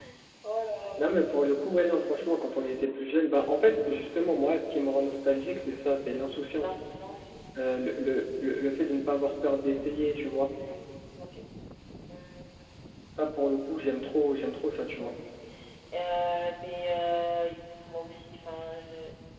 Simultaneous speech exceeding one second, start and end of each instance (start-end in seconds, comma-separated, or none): none